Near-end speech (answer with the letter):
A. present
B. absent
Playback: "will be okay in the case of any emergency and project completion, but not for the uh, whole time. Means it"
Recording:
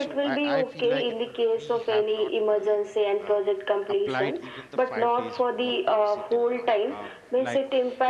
A